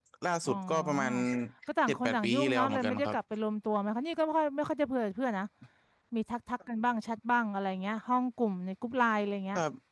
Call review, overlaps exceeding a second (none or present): present